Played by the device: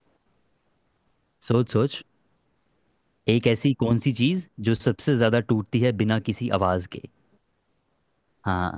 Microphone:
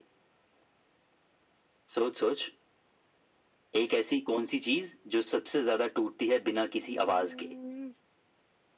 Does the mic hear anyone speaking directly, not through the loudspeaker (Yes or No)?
Yes